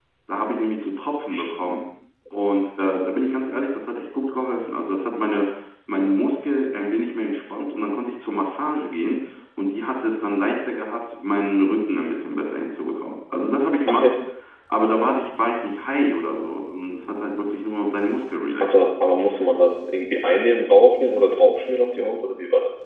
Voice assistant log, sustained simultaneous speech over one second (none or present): none